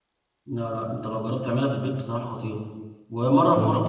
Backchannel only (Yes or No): Yes